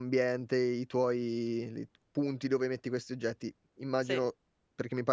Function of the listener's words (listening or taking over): listening